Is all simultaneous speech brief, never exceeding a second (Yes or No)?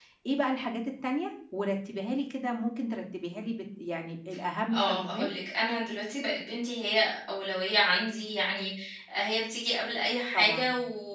Yes